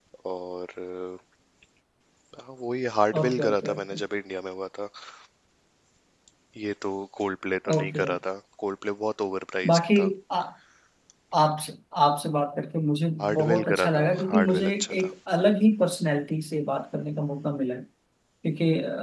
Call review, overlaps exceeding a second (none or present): present